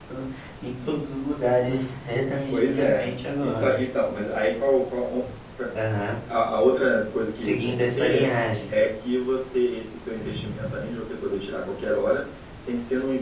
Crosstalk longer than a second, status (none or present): present